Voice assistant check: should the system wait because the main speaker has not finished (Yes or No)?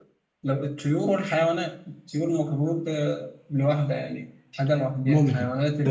No